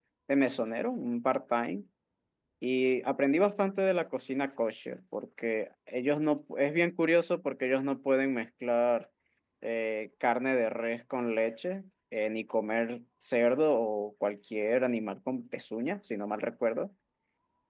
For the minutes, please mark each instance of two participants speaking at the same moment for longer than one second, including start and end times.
none

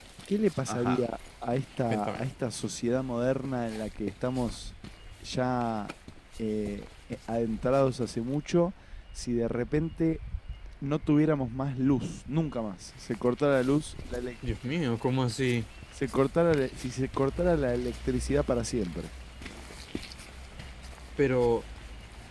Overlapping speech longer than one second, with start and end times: none

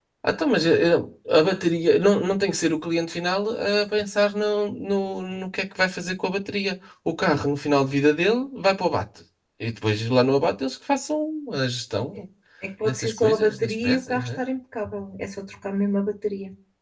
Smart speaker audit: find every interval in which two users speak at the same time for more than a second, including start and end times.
12.8-14.4

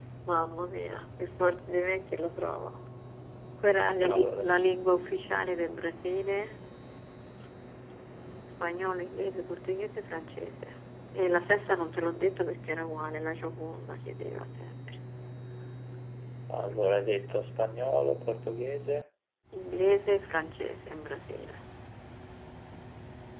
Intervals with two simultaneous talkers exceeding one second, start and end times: none

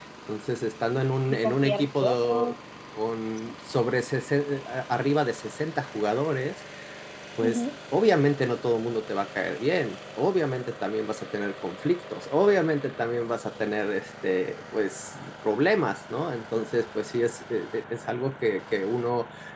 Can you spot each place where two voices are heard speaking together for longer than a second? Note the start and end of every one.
1.3-2.5

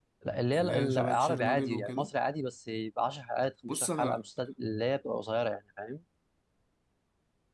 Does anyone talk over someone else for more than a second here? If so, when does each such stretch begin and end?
0.5-2.1

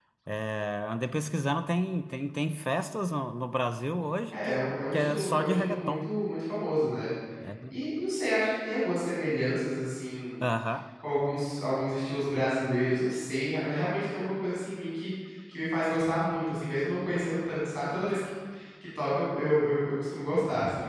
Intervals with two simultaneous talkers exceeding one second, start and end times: 4.3-6.1

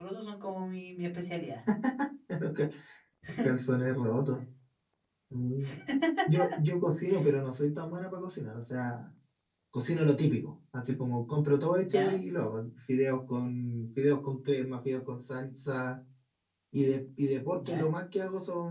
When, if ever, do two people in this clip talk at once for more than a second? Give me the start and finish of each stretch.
none

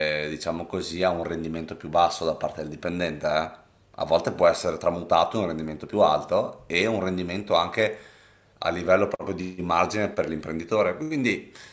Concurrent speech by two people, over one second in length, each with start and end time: none

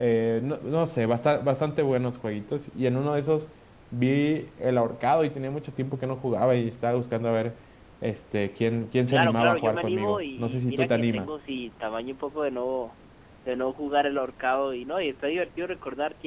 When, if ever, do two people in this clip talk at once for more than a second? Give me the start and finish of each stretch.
9.1-11.3

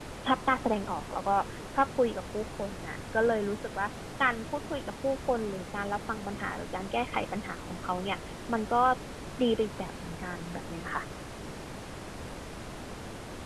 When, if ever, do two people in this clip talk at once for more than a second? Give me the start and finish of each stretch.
none

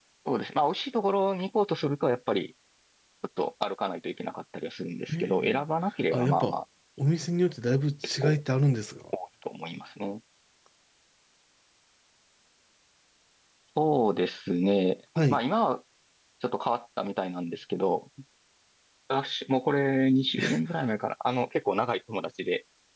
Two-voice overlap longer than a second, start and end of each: none

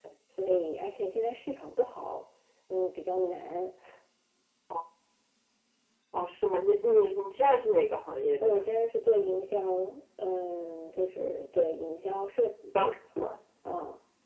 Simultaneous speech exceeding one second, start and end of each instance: none

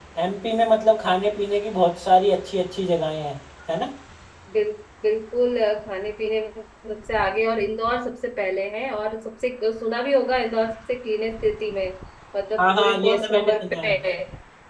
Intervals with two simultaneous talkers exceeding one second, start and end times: 12.6-13.9

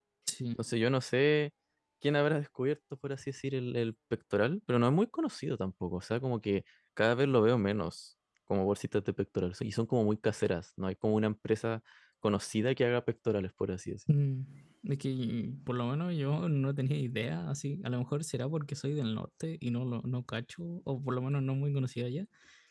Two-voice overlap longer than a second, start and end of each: none

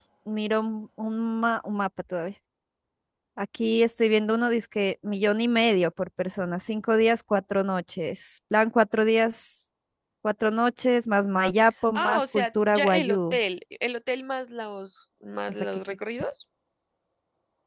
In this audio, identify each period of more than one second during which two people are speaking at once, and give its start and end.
11.9-13.4

